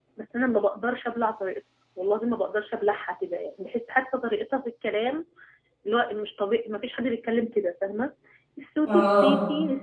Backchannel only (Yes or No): Yes